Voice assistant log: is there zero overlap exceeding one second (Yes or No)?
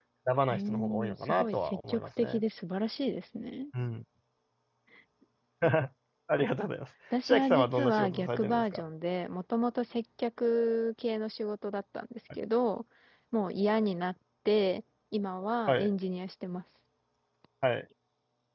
No